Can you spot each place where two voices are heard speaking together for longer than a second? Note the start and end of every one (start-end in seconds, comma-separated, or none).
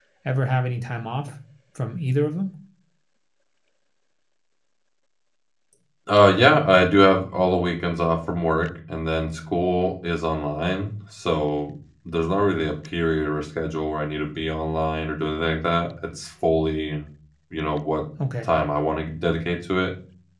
none